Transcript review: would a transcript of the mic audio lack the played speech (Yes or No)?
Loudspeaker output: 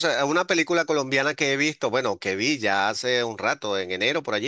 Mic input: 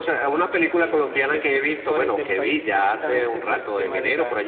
No